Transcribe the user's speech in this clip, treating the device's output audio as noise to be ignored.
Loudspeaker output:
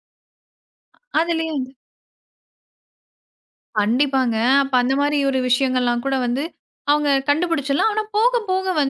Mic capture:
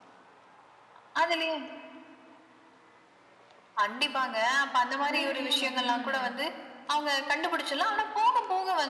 உடனடியா வந்து நானு

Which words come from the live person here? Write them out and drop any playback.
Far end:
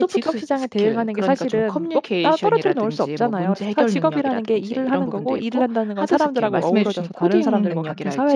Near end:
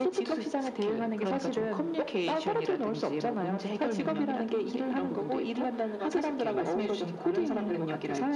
음.

